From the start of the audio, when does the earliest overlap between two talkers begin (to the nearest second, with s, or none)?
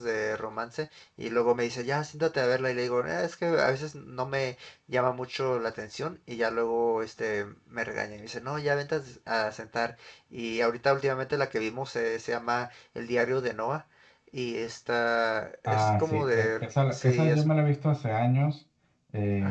16 s